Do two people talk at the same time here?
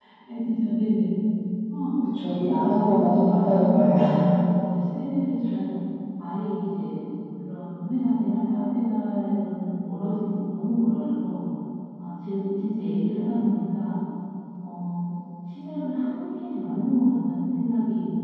Yes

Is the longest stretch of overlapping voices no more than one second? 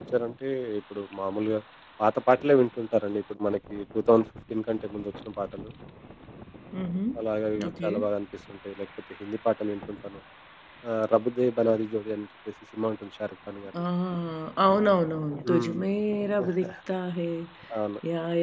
Yes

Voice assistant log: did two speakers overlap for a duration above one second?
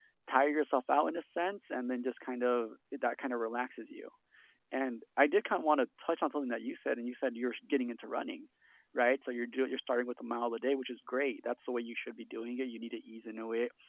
No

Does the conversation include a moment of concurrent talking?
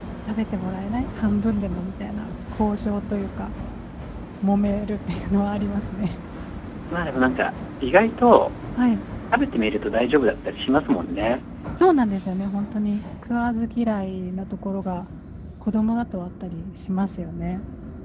No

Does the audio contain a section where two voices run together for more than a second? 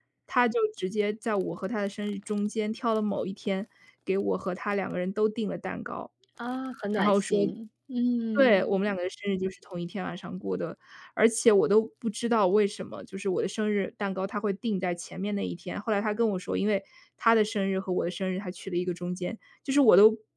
No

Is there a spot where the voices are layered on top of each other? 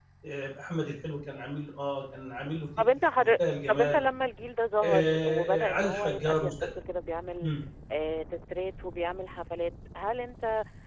Yes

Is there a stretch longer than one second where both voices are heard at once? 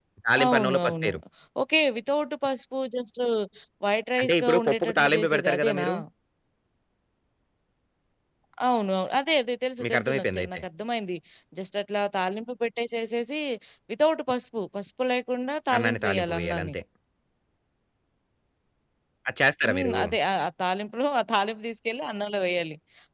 Yes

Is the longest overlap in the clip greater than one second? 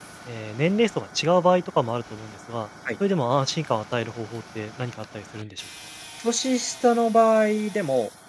No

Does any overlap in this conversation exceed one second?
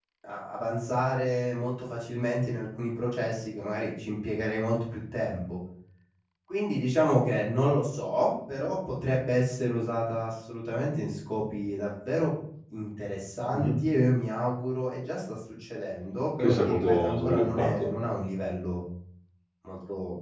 Yes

